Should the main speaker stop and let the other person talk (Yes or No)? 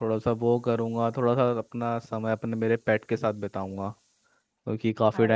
No